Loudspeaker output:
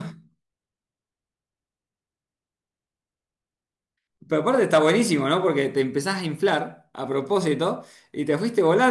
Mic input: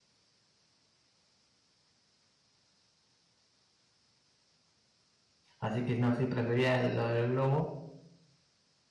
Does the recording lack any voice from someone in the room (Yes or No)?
No